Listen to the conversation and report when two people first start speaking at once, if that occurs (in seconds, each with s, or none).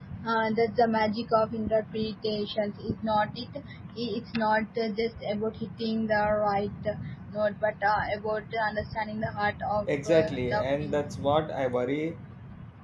9.9 s